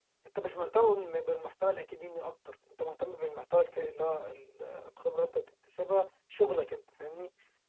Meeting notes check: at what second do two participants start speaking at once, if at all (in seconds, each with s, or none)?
none